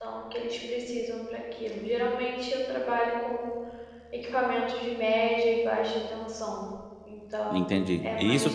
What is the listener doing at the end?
taking over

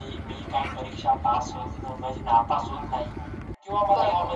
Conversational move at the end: listening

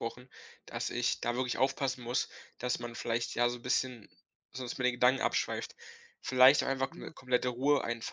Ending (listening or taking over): listening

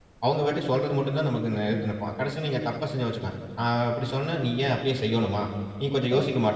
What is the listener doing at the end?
listening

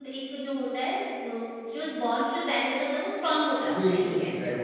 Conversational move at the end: taking over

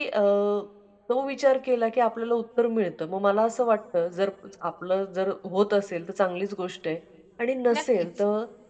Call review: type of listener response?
listening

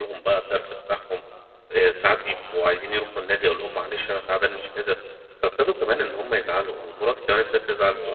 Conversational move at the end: listening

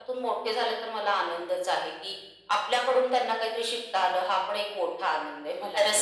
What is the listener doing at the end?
taking over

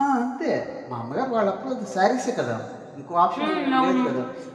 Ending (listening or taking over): listening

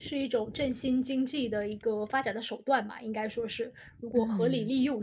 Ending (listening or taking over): taking over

